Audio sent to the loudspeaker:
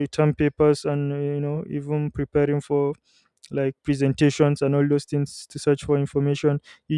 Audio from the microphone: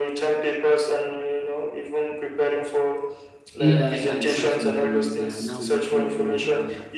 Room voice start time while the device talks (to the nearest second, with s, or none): 4 s